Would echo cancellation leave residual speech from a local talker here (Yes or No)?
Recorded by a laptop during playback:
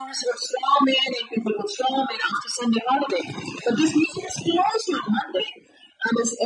No